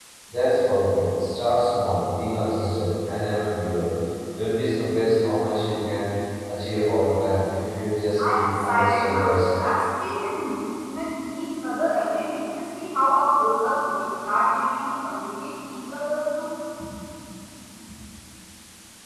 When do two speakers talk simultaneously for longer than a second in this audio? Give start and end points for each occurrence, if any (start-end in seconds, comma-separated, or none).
8.2-9.6